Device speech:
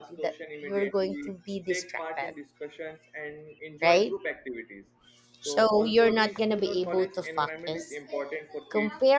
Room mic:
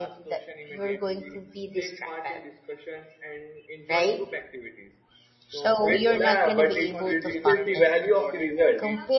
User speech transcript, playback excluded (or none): Which- yeah, but it reduces the value of the result